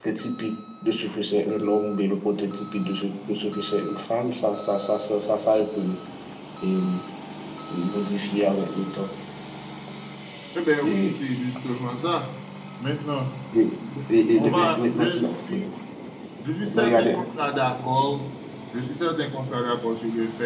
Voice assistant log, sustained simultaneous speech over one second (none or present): present